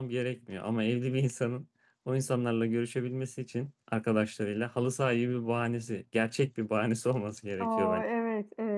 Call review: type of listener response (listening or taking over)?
taking over